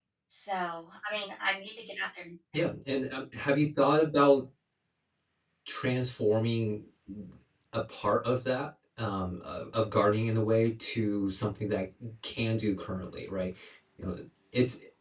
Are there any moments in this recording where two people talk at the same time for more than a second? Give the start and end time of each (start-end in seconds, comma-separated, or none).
none